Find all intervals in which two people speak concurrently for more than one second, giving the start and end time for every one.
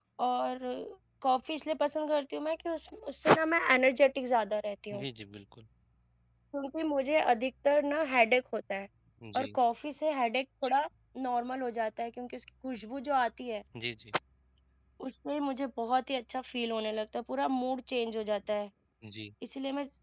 none

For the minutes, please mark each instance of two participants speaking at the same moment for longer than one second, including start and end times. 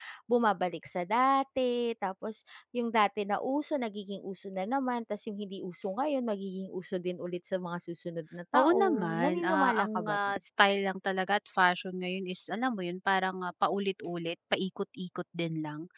8.5-10.2

